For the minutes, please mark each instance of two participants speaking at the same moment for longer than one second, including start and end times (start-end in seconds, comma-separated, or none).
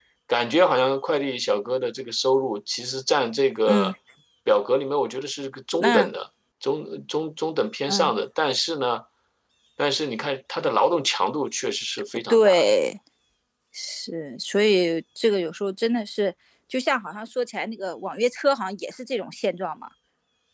none